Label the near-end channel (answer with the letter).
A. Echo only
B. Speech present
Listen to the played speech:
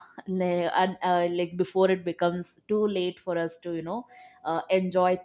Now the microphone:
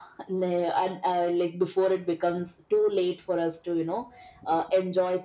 A